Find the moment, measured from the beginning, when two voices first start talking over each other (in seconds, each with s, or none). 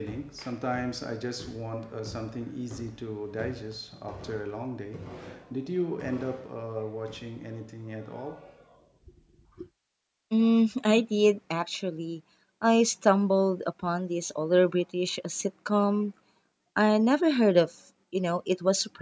none